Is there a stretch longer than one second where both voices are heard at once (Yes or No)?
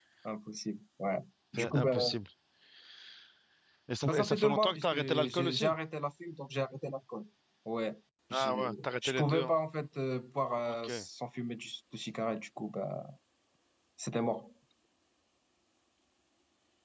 Yes